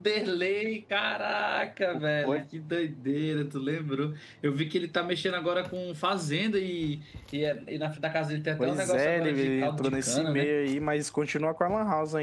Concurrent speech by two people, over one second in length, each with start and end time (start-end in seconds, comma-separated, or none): 8.6-10.6